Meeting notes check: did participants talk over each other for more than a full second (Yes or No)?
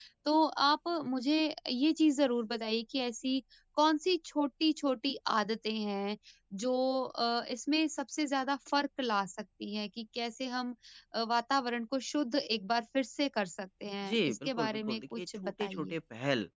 Yes